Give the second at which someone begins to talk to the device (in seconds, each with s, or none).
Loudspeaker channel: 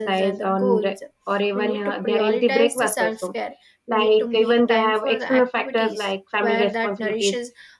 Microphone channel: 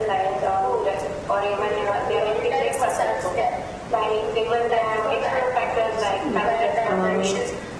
6.2 s